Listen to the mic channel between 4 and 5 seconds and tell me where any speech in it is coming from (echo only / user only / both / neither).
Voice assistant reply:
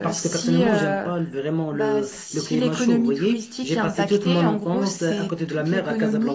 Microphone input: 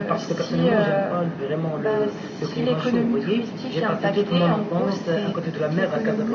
echo only